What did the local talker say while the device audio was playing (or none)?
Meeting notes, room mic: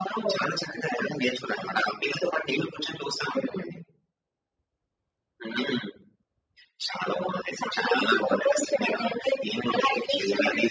none